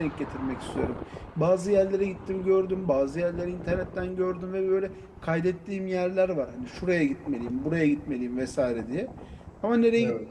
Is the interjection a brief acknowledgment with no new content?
Yes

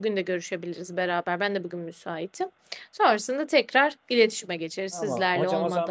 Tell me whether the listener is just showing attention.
No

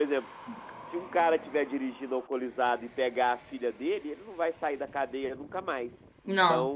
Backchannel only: Yes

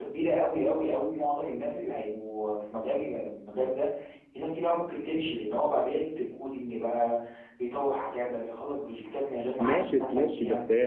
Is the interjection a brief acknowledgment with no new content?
No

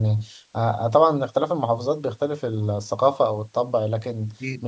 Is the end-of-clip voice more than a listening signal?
No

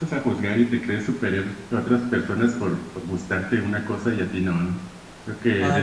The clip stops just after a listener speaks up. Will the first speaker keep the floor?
No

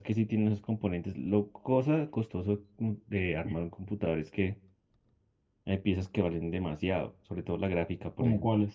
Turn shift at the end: Yes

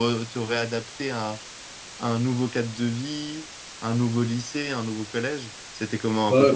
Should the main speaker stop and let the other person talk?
Yes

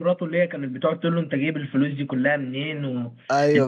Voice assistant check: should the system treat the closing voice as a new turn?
Yes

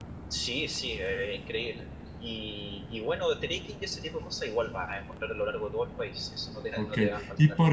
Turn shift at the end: Yes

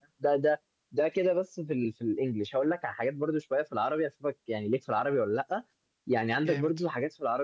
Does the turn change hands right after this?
No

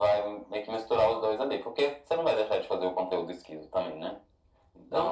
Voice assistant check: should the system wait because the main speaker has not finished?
No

